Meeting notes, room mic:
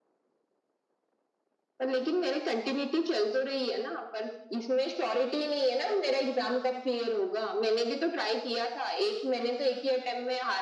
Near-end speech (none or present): none